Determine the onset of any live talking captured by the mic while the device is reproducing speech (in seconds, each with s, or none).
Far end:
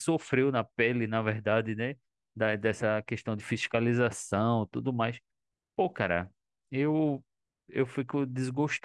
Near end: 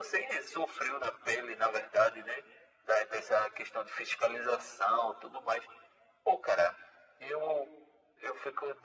none